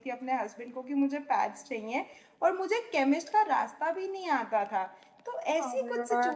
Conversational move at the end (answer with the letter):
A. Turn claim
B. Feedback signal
B